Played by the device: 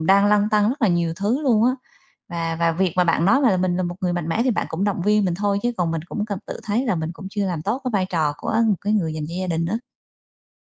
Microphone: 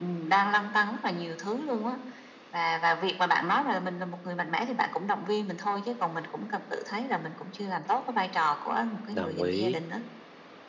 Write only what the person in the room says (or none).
Đồng ý.